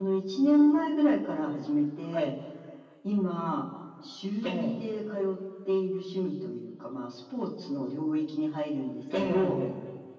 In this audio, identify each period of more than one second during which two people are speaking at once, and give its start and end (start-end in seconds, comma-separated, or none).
none